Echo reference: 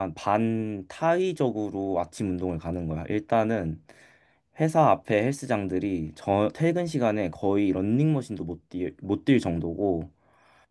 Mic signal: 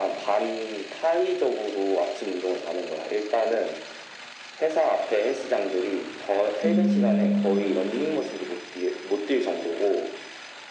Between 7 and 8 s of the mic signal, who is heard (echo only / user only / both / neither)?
both